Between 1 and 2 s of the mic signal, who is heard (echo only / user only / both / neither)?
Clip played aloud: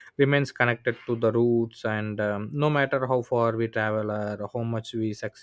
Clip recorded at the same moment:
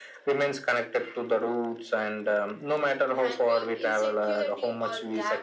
echo only